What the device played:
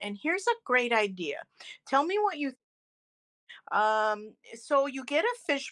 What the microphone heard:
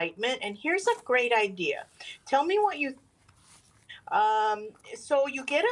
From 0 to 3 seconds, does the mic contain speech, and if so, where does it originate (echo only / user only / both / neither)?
echo only